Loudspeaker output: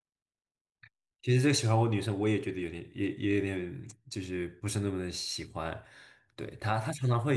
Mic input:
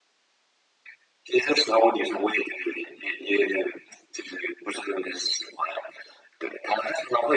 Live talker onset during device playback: none

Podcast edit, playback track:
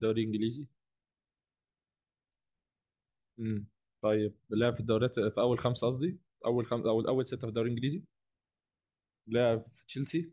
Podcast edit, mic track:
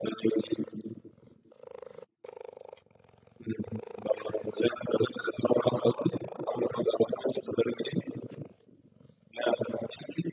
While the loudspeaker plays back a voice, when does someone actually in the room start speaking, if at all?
none

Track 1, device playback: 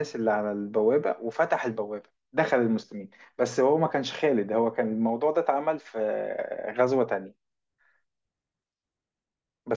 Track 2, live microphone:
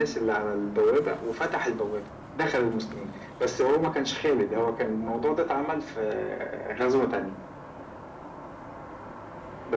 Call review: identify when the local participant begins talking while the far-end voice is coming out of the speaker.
none

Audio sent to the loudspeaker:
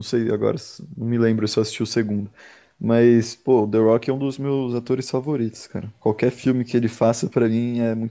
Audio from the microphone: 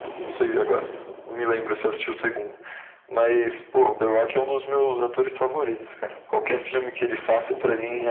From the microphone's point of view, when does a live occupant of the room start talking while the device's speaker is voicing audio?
none

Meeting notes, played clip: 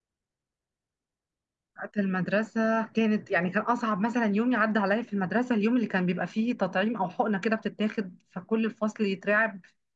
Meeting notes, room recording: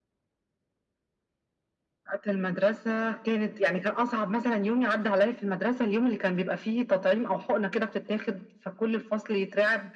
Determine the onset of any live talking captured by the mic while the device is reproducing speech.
none

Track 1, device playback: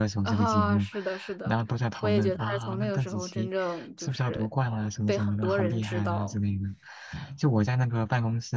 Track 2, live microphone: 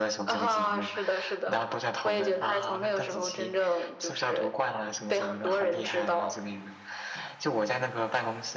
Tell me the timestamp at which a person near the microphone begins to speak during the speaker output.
none

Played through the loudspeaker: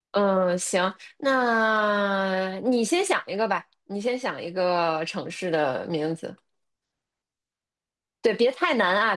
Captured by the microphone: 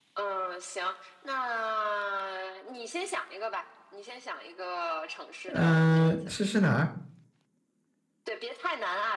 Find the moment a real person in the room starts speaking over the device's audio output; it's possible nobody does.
5.5 s

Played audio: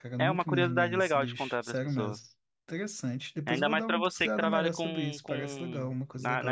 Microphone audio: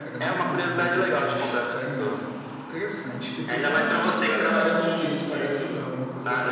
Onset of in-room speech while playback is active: none

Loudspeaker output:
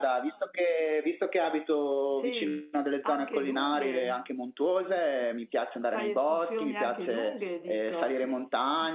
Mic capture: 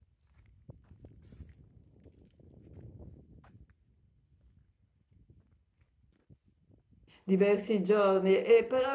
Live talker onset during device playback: 7.2 s

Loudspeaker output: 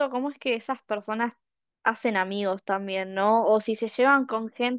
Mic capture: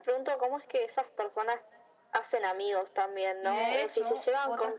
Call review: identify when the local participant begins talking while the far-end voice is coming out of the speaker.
3.4 s

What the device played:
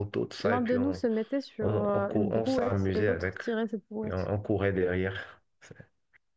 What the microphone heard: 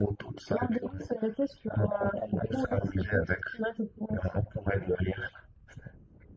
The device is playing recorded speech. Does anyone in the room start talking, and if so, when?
none

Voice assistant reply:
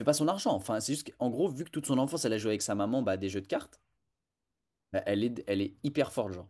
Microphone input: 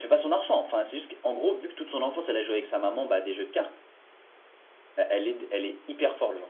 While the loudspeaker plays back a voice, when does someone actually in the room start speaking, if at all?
none

